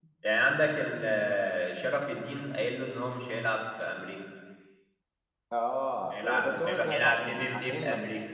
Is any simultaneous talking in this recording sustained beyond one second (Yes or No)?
Yes